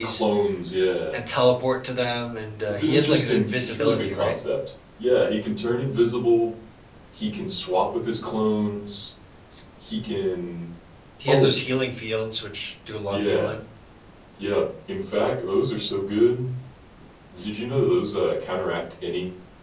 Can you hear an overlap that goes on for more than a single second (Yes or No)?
Yes